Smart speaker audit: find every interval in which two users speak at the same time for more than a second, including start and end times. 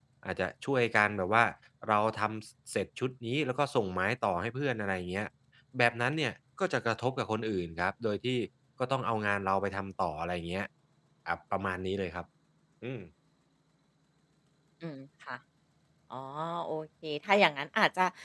none

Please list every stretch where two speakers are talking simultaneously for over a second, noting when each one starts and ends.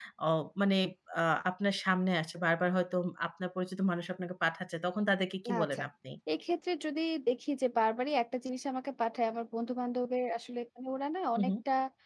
none

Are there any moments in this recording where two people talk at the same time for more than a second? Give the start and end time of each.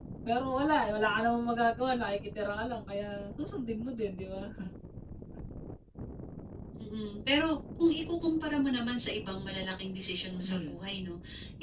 none

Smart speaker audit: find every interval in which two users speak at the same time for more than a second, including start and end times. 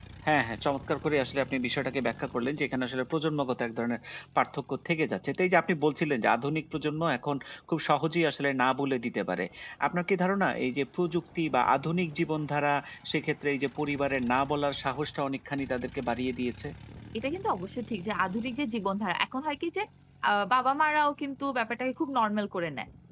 none

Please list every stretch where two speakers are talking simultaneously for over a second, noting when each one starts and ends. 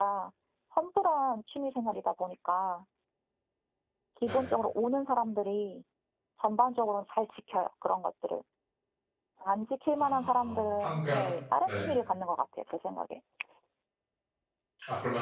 10.0-11.2

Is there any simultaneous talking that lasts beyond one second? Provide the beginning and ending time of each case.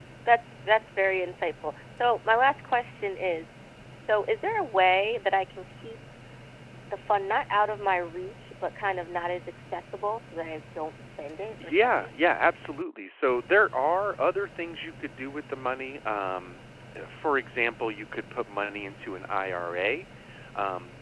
none

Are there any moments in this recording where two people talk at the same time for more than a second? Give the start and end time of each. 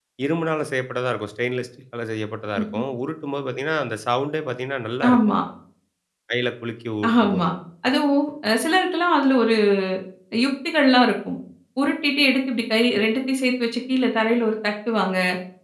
none

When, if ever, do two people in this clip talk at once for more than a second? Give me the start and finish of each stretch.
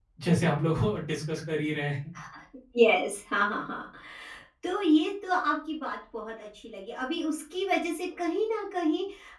none

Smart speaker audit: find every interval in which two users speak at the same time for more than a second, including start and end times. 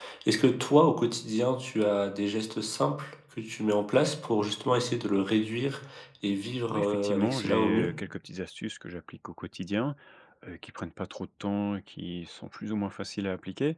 6.7-7.9

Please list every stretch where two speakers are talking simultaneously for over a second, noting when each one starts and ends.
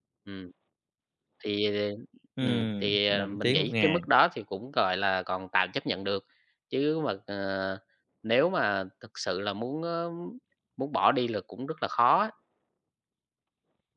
2.4-4.0

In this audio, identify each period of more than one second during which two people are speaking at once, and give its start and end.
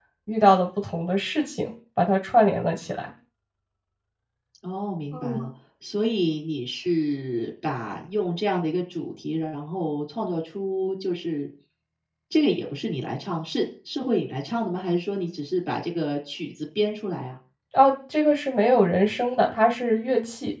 none

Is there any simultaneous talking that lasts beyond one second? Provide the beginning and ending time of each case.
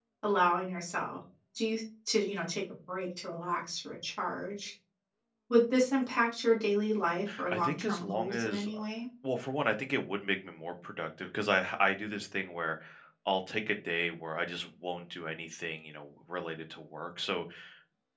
7.5-8.8

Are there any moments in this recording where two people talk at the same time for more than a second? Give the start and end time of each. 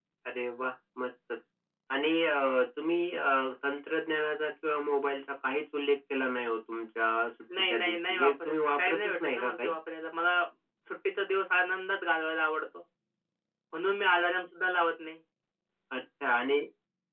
7.7-9.7

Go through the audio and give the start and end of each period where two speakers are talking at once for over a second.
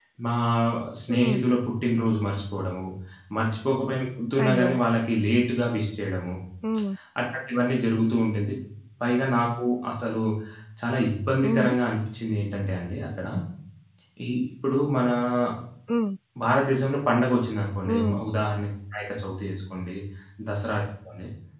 none

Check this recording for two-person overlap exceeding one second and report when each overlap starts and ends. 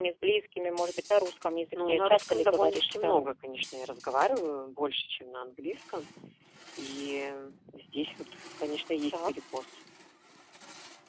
1.7-3.3

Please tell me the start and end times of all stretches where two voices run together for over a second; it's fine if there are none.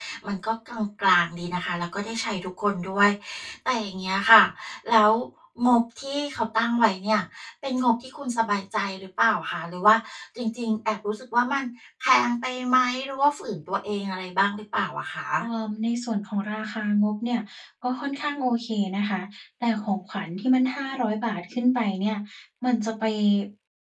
none

